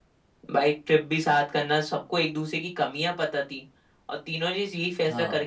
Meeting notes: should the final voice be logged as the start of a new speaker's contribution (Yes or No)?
No